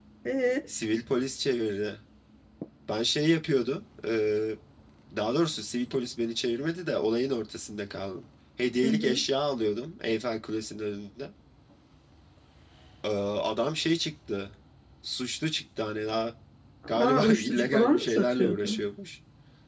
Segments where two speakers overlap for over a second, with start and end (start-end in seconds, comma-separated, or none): 16.9-18.8